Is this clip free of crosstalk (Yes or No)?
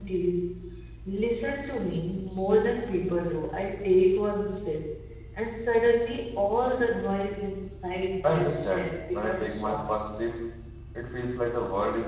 No